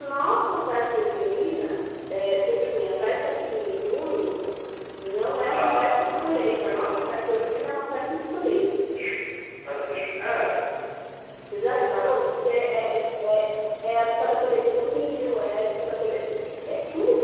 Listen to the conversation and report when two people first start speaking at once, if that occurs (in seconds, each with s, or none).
5.5 s